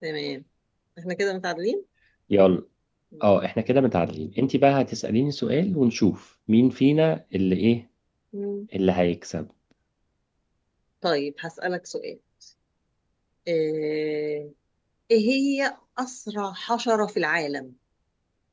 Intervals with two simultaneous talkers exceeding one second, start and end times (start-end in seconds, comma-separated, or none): none